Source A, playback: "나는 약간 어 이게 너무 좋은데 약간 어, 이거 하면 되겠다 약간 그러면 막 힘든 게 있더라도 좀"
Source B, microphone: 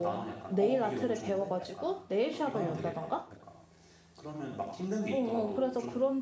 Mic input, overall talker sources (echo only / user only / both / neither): both